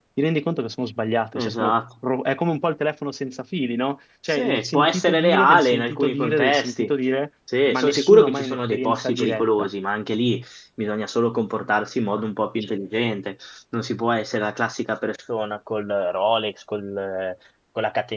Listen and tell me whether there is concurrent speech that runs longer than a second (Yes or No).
Yes